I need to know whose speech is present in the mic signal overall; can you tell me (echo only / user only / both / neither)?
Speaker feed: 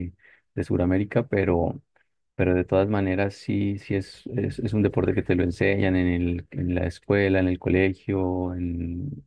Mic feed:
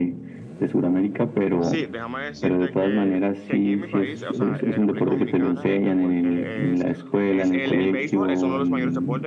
both